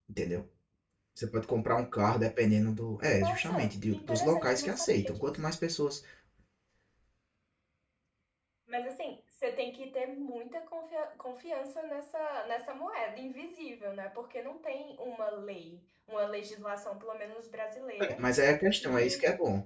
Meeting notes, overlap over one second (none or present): present